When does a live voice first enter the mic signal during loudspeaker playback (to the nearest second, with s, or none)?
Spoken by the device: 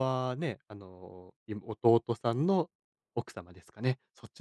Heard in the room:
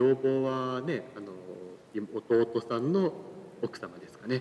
none